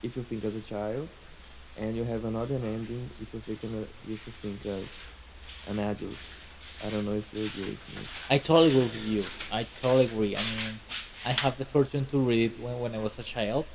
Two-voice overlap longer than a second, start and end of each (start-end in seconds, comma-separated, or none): none